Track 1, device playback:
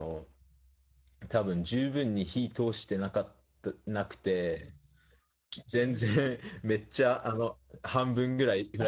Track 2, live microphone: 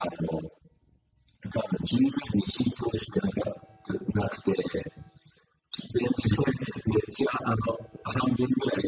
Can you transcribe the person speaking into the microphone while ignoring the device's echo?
none

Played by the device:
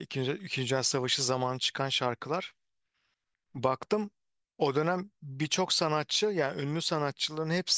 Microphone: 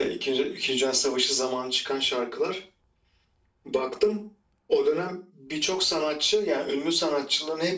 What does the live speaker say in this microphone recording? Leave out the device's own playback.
none

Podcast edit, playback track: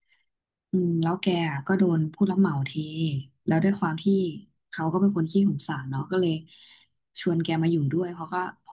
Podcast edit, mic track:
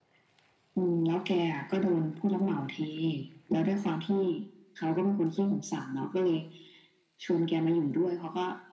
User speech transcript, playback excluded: none

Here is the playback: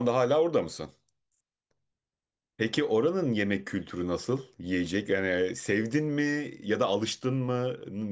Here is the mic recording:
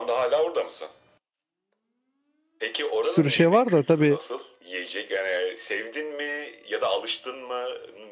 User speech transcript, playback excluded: bir sürü şey var da tabii

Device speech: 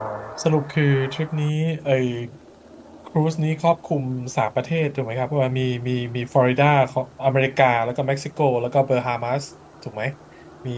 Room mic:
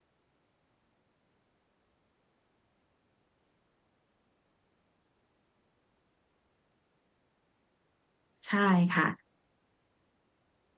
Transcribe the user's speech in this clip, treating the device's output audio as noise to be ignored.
ใช่ค่ะ

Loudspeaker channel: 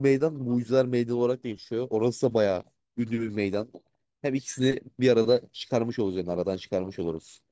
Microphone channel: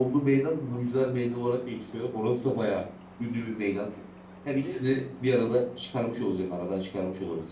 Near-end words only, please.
bir de

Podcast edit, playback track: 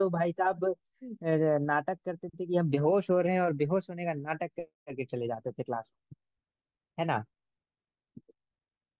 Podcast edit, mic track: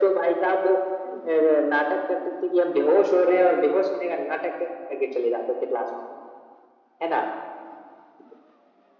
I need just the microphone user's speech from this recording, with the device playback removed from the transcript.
none

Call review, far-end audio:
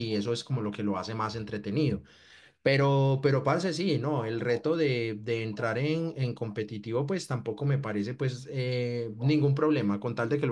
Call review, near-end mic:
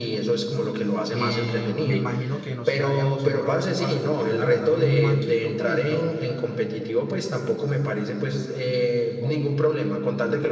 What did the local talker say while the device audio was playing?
Eh, me imagino que nos quedaríamos en bronce, parce, porque yo la verdad soy muy manquito, pues yo,

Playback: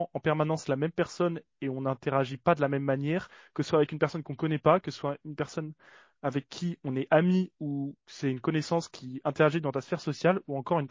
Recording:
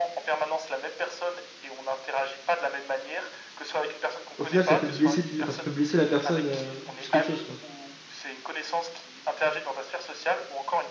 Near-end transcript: au final, ça peut te blesser plus, enfin, ça peut blesser la personne euh, plus qu'autre chose, quoi.

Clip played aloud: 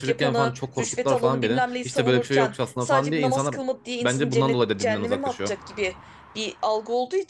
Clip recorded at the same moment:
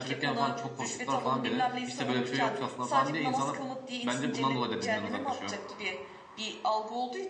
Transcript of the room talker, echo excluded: none

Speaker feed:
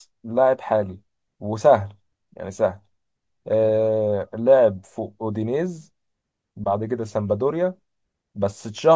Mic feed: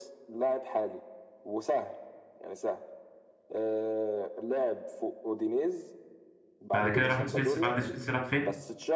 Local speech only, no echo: بعد كده راح تشيلسي بعد تشيلسي راح فين؟

